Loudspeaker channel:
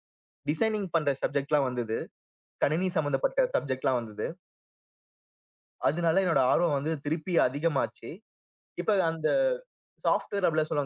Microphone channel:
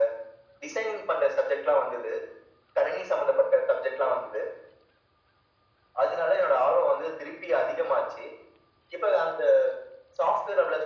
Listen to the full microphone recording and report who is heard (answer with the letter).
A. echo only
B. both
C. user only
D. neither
A